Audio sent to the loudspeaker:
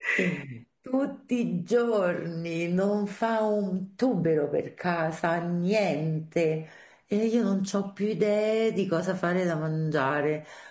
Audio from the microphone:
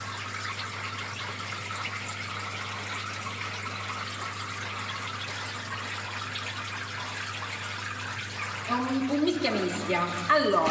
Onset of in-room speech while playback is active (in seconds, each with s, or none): 8.6 s